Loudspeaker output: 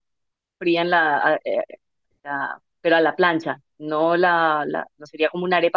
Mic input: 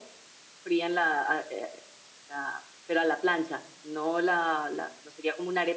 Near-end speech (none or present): none